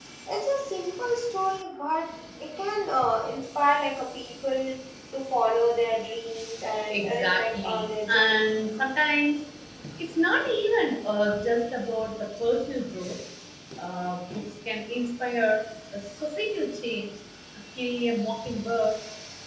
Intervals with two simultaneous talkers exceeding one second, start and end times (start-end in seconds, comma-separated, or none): 6.9-8.7